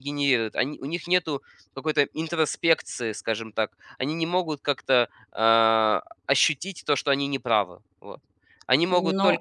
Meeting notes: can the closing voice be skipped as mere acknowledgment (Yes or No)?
No